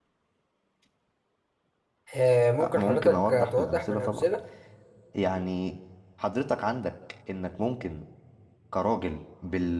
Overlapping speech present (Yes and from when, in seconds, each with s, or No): Yes, from 2.6 s